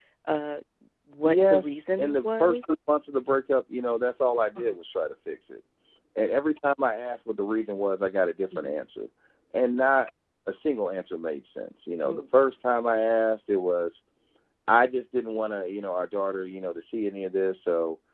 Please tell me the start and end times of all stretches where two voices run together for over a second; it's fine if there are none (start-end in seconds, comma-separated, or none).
1.2-2.6